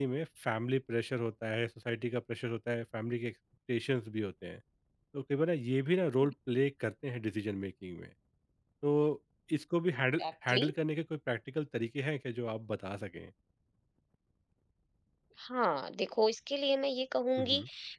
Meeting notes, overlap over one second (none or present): none